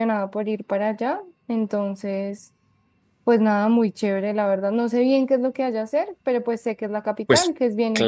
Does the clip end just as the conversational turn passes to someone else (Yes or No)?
Yes